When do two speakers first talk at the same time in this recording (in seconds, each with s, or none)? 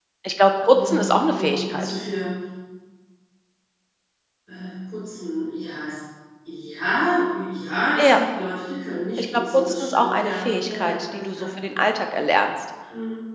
0.7 s